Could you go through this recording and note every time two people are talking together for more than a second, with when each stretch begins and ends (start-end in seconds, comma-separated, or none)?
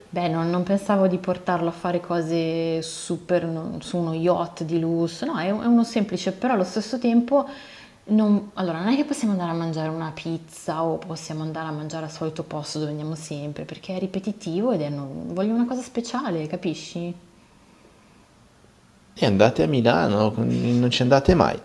none